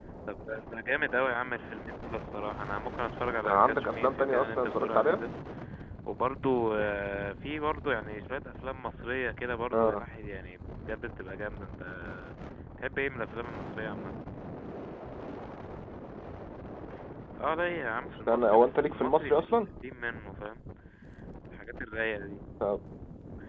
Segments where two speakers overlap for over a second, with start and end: 3.2-5.2, 18.0-19.6

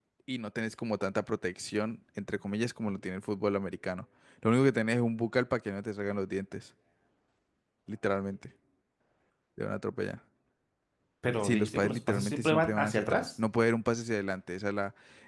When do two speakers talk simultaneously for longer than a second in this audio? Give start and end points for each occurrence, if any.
11.4-13.3

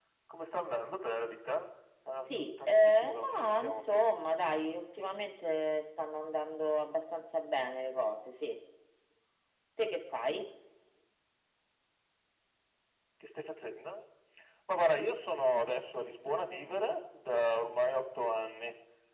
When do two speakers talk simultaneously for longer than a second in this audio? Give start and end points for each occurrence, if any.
2.3-4.0

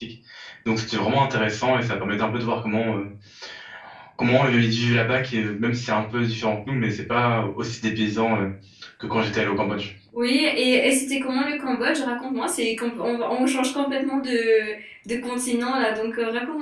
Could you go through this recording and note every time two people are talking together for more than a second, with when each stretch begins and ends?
none

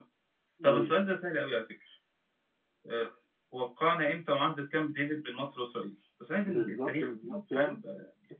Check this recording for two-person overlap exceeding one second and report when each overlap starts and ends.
6.5-7.8

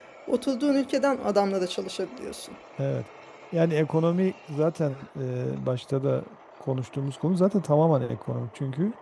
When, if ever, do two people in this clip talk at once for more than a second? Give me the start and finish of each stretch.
none

